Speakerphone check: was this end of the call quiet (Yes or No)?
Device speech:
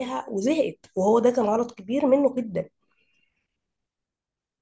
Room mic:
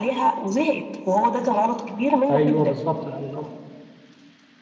No